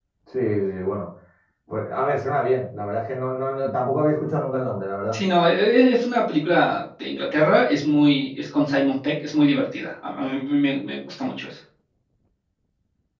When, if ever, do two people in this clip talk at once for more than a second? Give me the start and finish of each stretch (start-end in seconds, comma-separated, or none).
none